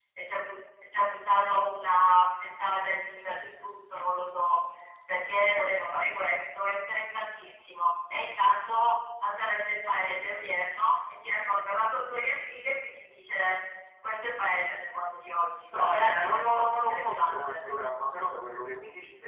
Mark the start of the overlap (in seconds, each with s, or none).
15.7 s